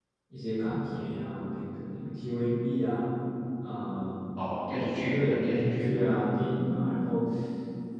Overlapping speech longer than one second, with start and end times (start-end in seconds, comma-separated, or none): 4.7-6.1